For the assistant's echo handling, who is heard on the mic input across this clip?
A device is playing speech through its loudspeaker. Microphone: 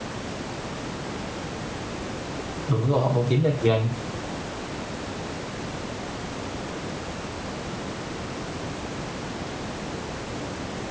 user only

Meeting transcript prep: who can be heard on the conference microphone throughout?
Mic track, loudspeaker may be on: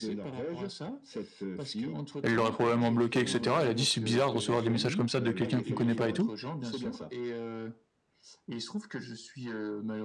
both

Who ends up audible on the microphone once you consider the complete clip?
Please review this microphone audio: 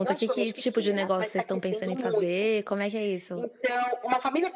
both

